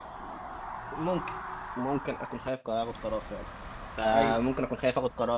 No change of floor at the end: Yes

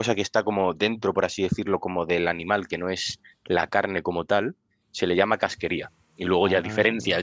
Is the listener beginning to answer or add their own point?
No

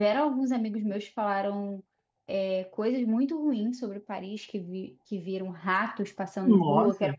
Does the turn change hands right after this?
No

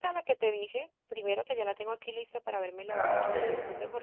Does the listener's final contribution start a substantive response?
No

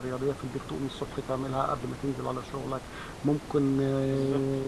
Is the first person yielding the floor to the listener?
No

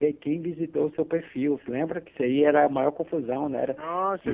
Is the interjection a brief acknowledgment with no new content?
No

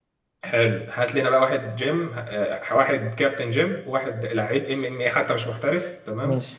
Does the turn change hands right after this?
No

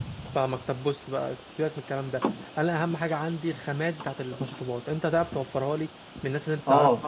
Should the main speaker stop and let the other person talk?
Yes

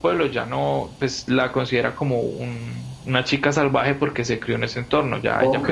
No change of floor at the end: No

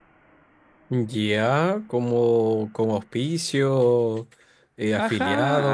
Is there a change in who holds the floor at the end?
Yes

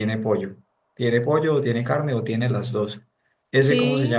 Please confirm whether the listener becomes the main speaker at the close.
Yes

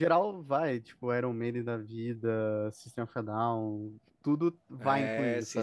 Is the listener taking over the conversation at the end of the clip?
Yes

